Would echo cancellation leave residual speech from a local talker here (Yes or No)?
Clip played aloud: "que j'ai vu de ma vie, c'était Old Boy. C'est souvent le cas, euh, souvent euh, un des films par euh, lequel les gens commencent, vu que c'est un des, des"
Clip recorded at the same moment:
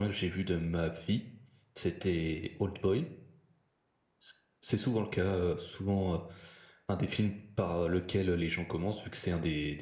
No